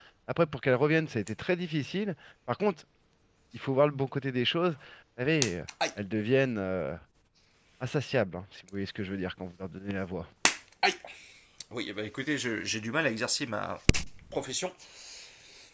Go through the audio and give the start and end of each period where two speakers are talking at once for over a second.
none

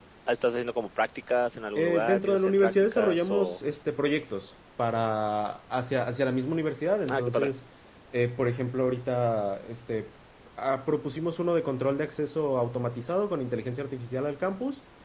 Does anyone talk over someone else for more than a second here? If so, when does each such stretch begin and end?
1.8-3.6

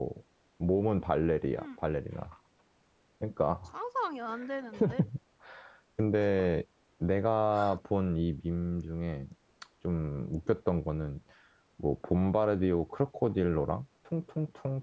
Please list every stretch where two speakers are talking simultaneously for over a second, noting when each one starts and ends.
none

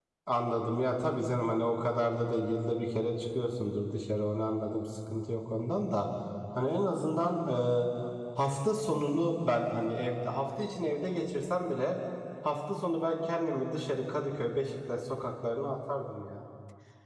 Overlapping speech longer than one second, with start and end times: none

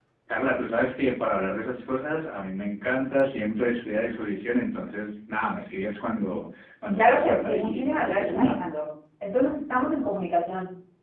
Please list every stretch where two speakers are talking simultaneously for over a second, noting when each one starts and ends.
7.0-8.5

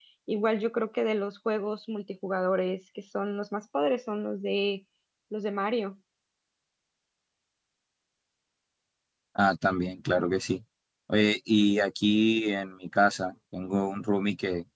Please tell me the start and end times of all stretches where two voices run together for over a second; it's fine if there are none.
none

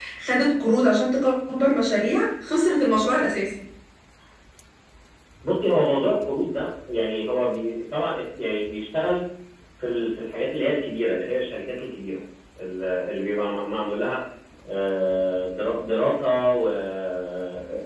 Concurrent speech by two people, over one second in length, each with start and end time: none

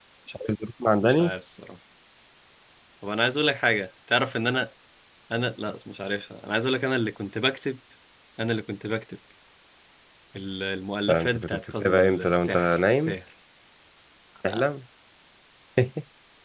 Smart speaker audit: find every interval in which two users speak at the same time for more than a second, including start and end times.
11.1-13.1

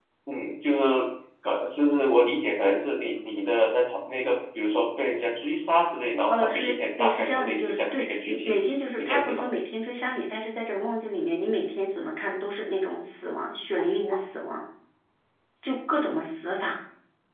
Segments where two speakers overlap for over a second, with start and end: 6.3-8.6

